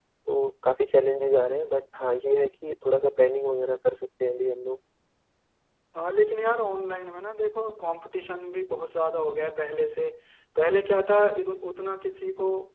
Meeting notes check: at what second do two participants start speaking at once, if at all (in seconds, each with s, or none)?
none